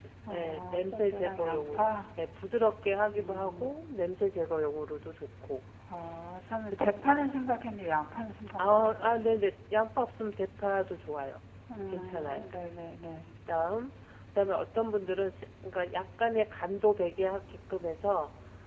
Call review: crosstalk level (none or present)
present